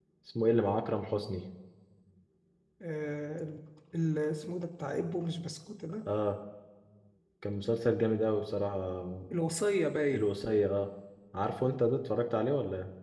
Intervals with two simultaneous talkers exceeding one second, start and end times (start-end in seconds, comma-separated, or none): none